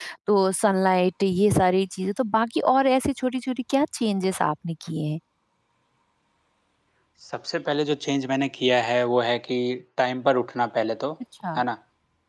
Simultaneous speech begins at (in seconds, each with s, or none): none